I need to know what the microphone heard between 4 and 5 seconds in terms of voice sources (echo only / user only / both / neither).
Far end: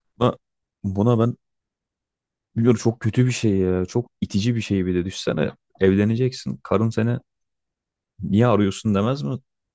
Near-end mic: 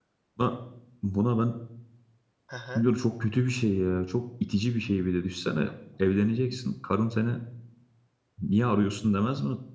echo only